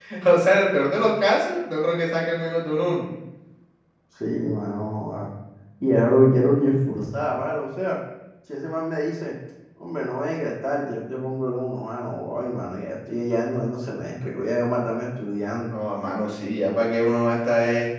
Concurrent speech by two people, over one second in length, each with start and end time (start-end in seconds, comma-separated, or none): none